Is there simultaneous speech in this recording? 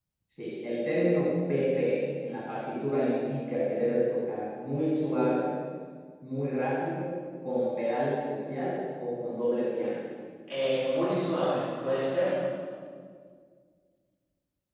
No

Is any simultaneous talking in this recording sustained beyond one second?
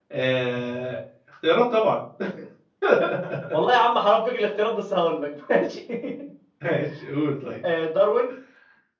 No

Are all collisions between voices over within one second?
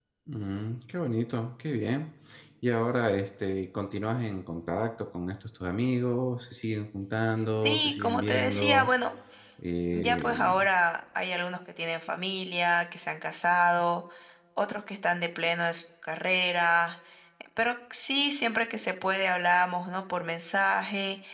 No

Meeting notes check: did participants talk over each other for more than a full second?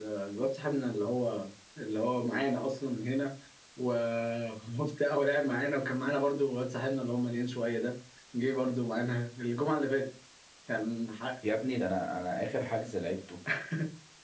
No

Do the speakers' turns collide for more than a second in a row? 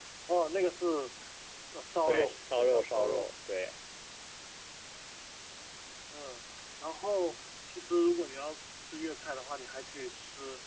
Yes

